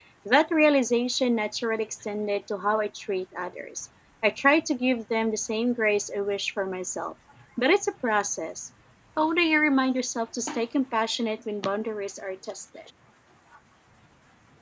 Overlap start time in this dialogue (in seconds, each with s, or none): none